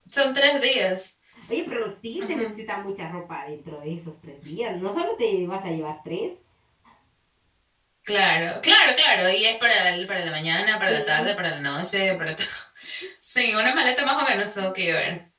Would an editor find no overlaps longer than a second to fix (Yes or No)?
Yes